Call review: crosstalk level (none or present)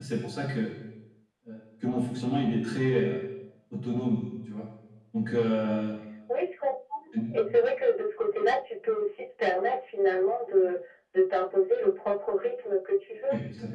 none